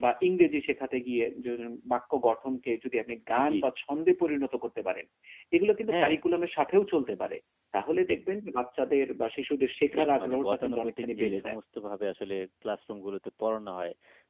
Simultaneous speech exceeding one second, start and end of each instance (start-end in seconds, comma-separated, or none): 10.0-11.6